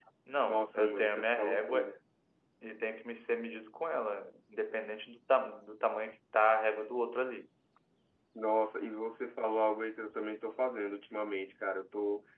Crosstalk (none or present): present